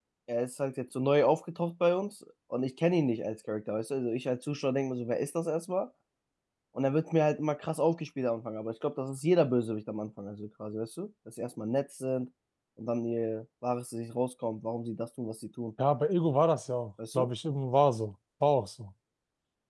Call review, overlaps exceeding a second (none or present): none